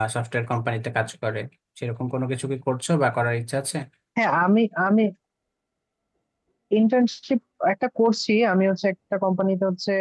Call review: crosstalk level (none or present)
none